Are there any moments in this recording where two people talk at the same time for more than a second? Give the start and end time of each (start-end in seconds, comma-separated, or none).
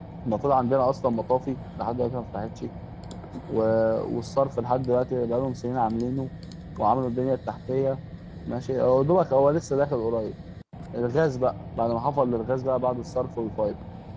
none